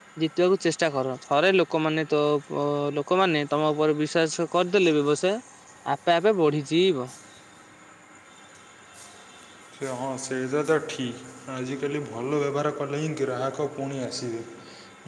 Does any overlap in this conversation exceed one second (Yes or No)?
No